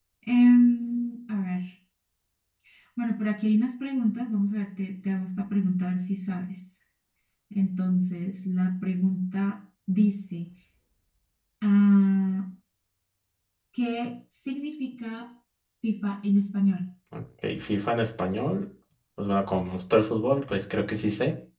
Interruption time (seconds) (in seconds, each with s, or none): none